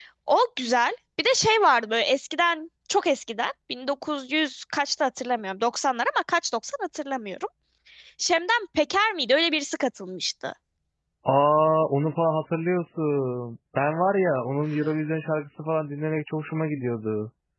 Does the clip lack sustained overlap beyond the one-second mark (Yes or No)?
Yes